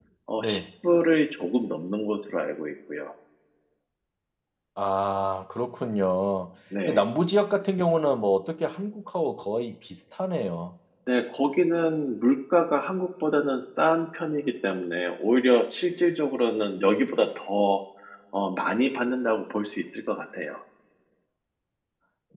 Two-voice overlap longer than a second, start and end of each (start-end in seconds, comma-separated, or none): none